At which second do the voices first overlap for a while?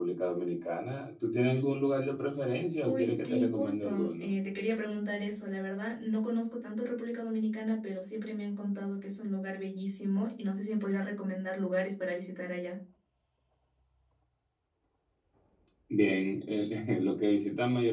3 s

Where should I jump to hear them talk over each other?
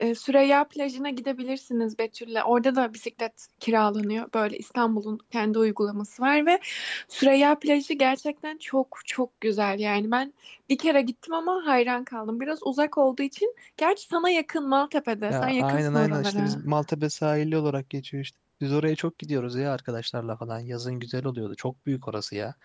15 s

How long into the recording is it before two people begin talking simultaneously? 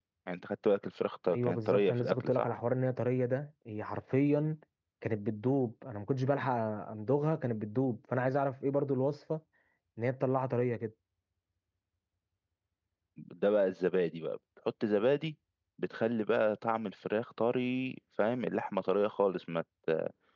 1 s

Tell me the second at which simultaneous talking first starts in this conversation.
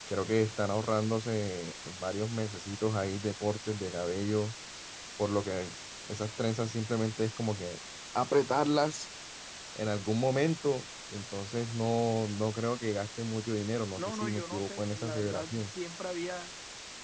14 s

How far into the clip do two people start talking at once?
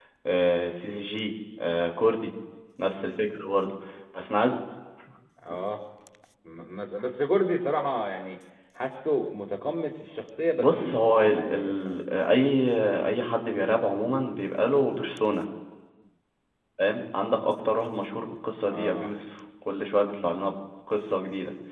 11 s

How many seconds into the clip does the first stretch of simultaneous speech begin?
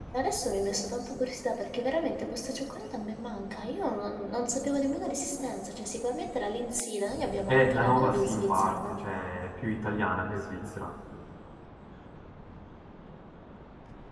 7 s

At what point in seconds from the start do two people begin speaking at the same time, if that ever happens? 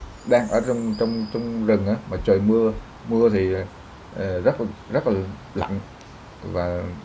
none

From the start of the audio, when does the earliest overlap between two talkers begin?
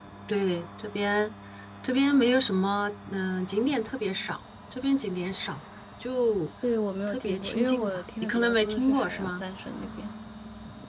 7 s

